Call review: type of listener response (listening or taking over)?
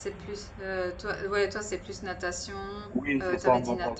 taking over